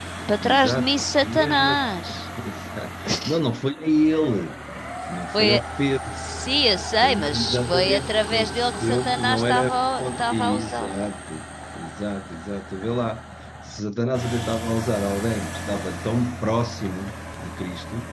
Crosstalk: present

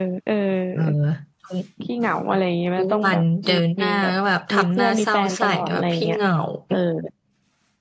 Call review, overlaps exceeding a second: present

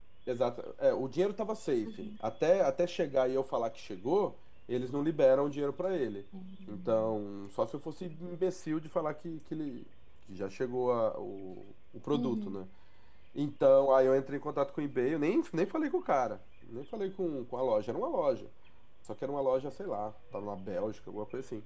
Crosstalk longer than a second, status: none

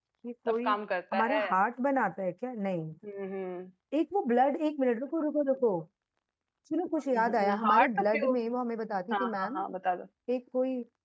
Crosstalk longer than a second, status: present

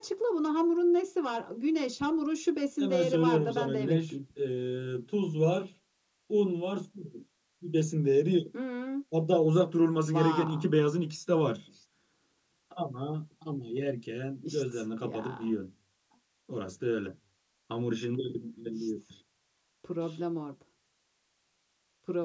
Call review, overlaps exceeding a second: present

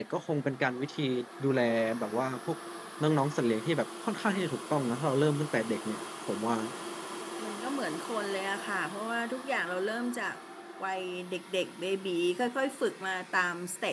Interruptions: none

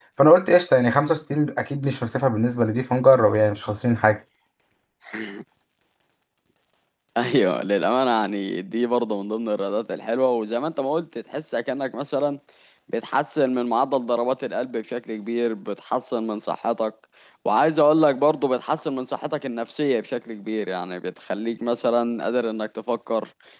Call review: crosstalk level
none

